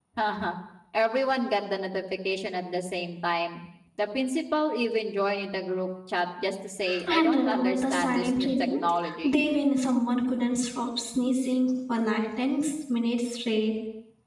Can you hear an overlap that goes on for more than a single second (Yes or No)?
Yes